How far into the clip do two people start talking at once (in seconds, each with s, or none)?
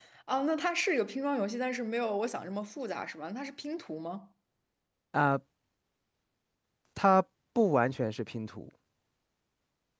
none